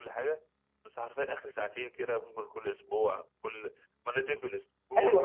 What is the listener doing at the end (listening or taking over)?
taking over